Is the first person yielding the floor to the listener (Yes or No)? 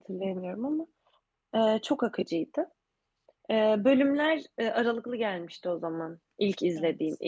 No